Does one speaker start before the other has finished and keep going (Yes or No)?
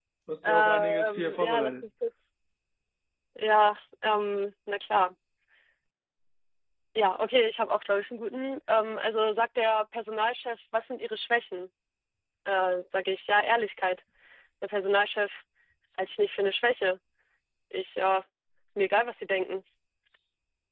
Yes